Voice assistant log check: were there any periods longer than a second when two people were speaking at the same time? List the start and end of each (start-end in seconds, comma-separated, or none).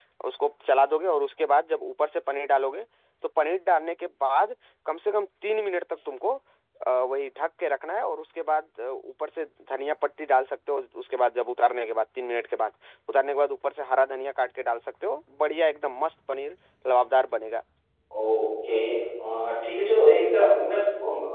none